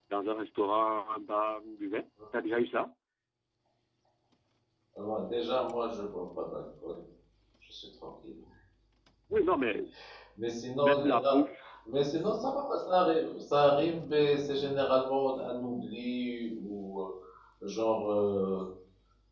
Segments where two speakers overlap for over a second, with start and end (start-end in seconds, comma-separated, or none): none